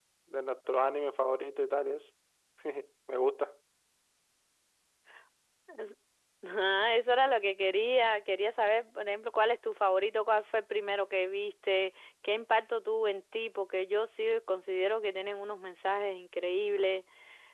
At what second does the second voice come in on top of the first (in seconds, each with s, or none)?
none